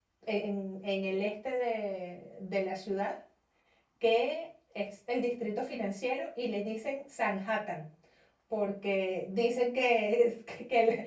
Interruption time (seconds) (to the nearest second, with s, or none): none